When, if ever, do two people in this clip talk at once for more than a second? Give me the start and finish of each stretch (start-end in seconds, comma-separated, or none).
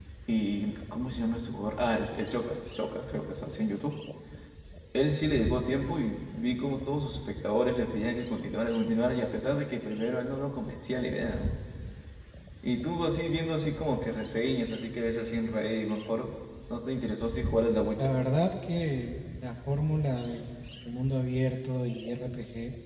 none